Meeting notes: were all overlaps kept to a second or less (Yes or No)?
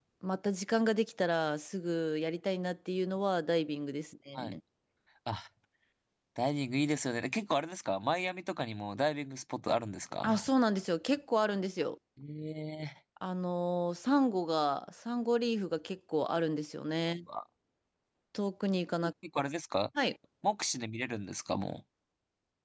Yes